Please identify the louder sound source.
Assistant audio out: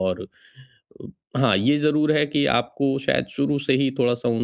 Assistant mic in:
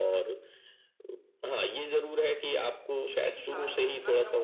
echo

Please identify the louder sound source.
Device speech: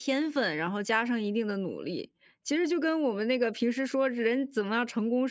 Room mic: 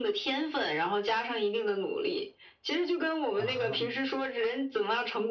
echo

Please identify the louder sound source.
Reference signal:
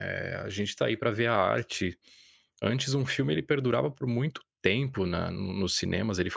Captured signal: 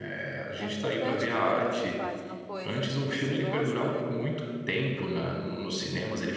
echo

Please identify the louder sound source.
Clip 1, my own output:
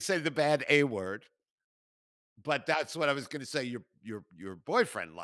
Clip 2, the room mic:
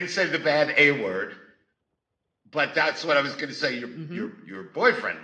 echo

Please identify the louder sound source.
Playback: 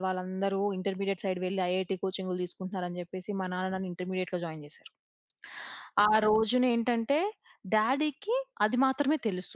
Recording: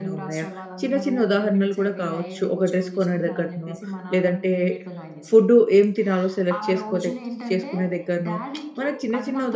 user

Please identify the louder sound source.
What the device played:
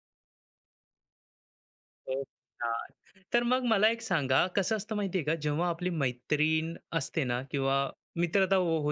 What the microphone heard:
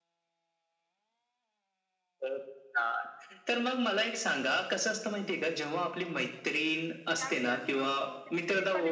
echo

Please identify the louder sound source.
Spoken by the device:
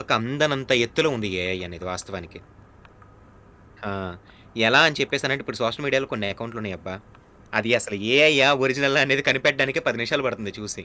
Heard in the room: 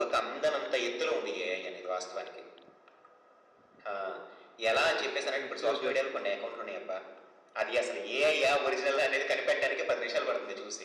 echo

